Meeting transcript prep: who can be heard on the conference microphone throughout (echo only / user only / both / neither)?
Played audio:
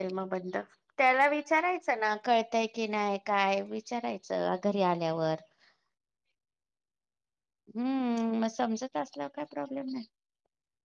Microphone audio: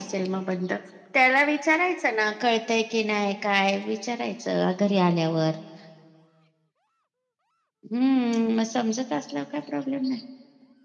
echo only